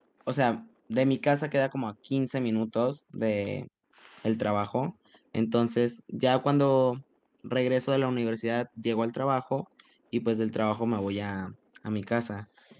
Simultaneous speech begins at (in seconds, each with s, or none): none